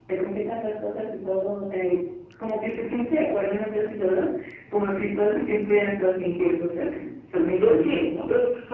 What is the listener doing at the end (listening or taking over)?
taking over